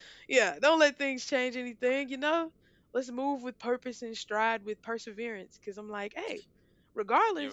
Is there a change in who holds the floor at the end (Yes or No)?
No